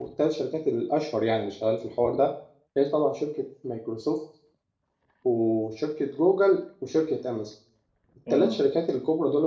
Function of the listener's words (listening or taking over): listening